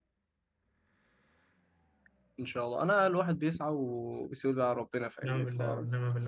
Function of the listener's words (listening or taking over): taking over